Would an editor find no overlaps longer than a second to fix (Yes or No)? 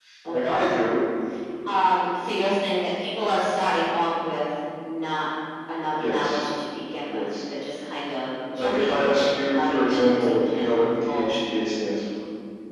No